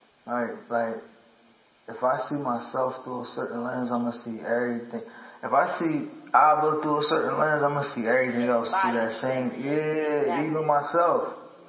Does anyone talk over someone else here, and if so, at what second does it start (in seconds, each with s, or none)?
8.4 s